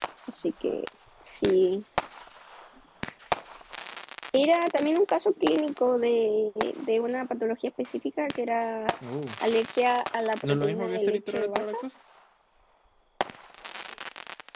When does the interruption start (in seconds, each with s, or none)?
10.4 s